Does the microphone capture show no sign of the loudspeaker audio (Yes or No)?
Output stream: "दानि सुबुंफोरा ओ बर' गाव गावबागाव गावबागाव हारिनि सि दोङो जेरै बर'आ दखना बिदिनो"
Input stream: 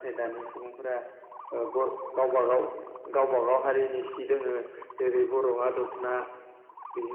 No